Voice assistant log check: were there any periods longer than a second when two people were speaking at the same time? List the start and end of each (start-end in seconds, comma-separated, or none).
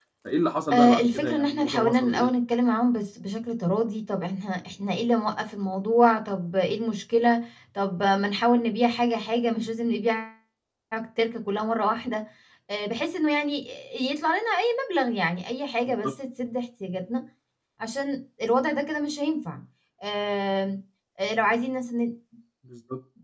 0.7-2.3